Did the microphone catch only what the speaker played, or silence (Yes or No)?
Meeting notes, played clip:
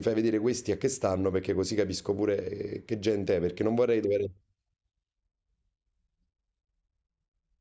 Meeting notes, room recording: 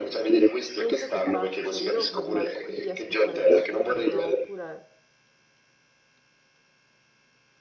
No